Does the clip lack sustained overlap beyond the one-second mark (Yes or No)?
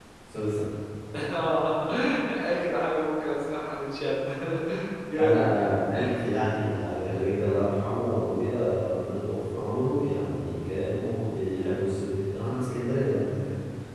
Yes